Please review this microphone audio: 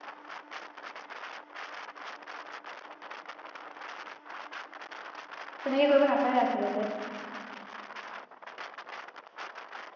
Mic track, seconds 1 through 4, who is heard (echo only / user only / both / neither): neither